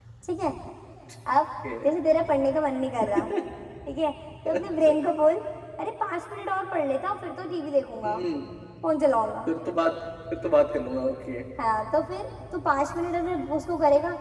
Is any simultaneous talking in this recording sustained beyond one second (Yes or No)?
No